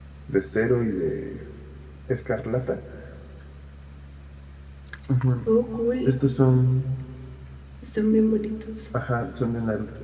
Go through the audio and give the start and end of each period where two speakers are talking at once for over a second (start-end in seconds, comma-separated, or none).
none